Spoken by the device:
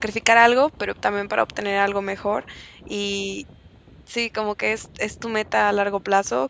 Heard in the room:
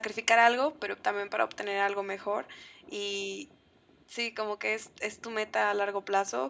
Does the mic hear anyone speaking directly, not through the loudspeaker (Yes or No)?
No